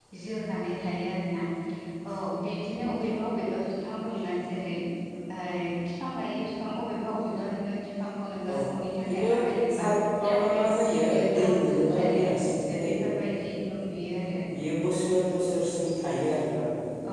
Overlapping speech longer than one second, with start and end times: 10.2-12.2

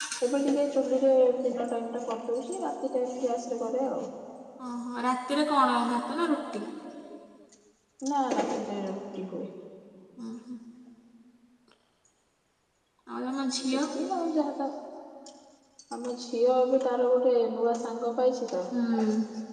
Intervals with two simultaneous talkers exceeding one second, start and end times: none

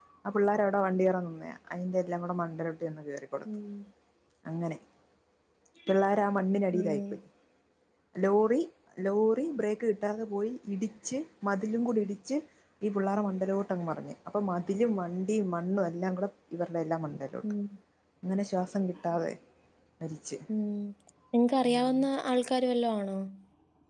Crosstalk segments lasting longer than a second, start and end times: none

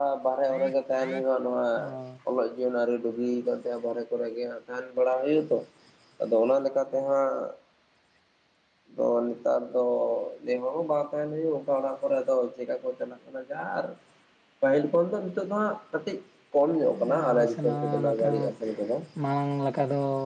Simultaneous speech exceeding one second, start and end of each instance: 17.1-18.5

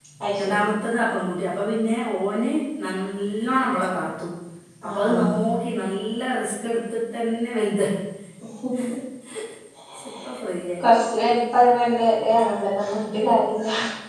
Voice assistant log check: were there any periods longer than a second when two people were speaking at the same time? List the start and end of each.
none

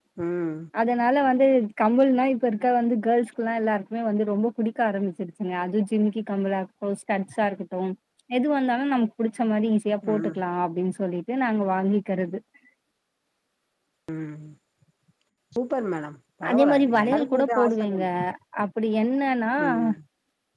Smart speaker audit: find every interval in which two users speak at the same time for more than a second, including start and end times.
16.5-18.0

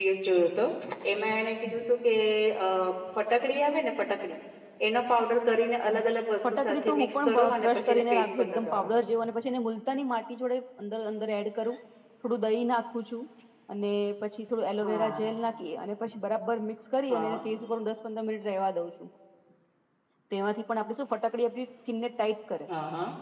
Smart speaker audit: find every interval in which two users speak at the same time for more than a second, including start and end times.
6.5-8.9

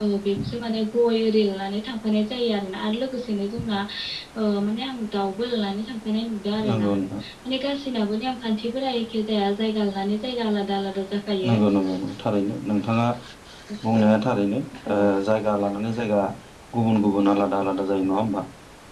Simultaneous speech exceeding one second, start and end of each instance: none

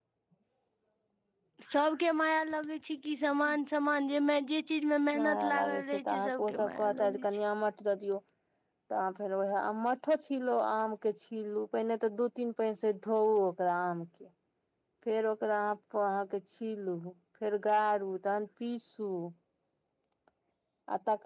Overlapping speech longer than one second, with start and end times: 5.2-7.2

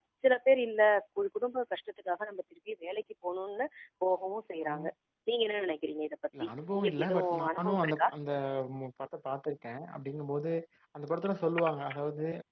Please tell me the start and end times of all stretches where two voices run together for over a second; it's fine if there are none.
6.4-8.1

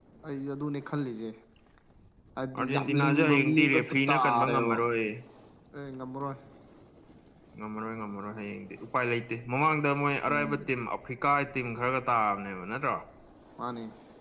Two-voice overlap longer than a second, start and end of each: 2.6-4.8

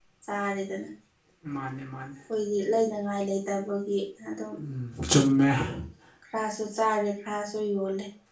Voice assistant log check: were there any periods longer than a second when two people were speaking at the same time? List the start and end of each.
none

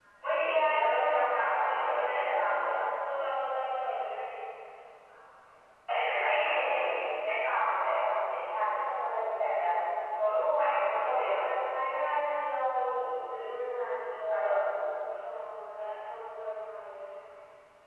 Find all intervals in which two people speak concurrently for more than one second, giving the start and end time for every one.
0.5-2.7

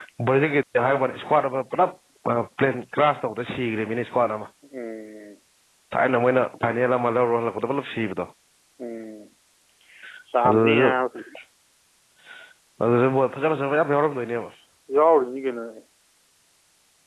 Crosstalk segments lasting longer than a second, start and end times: none

